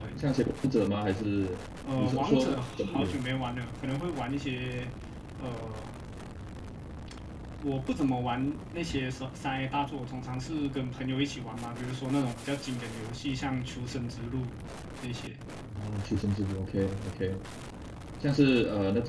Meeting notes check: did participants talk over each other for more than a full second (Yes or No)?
Yes